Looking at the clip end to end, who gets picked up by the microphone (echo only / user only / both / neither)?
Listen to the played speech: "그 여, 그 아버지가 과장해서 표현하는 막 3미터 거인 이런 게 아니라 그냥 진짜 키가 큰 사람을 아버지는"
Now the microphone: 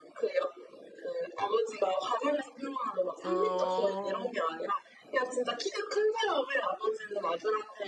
both